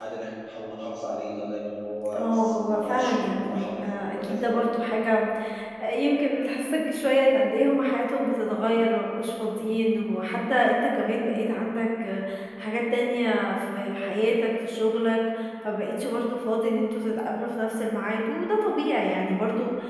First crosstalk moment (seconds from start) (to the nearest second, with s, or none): 2 s